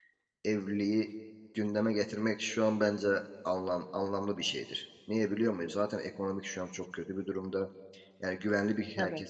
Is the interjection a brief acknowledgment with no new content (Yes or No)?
No